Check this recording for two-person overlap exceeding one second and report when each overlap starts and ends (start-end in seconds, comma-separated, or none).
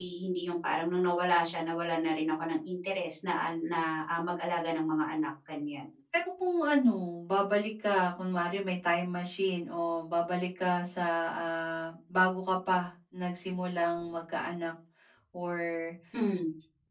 none